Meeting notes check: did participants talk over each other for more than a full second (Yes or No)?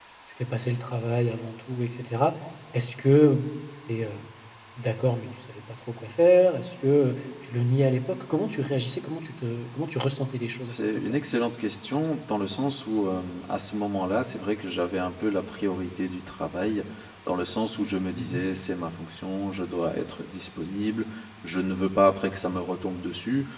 No